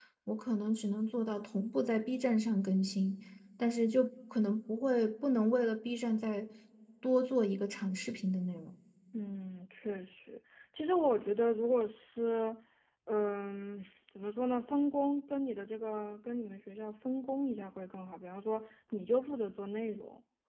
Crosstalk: none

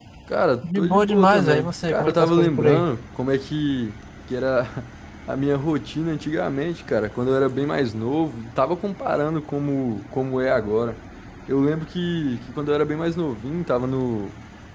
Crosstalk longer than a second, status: present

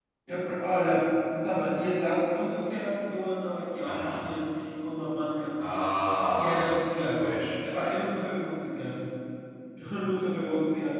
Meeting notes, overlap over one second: none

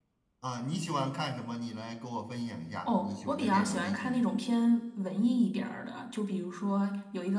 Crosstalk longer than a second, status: present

